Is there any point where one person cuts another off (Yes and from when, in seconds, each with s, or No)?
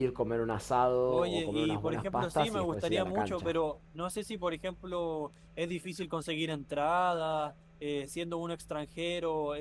Yes, from 1.1 s